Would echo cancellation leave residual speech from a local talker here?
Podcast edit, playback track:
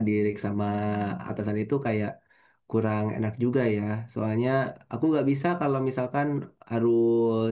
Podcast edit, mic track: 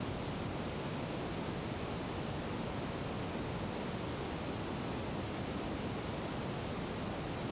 No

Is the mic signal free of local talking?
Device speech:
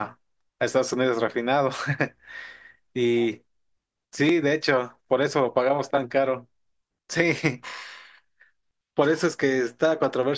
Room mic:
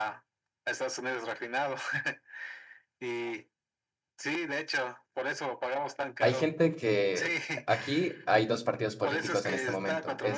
No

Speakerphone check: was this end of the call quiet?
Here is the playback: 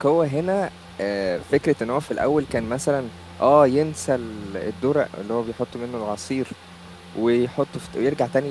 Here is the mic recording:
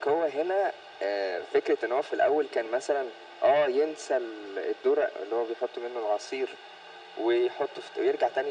Yes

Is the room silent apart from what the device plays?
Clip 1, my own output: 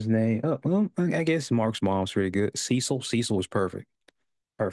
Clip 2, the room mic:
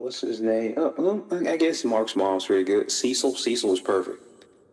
Yes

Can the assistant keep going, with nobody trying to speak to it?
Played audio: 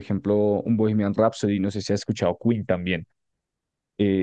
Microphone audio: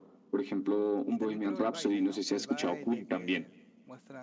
No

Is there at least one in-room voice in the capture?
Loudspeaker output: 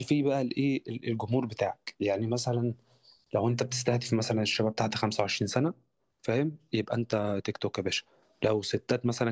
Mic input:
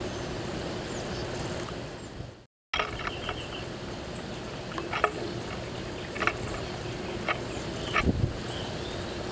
No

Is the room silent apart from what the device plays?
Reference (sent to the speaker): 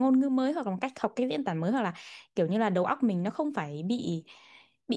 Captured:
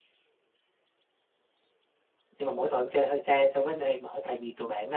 No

